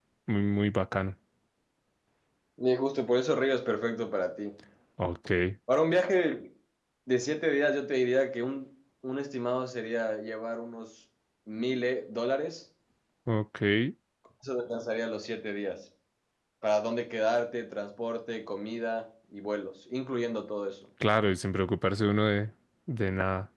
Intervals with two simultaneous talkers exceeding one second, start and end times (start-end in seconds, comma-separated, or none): none